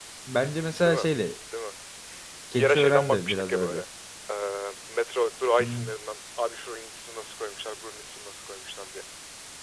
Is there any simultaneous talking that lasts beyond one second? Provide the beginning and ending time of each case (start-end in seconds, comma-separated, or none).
2.6-3.8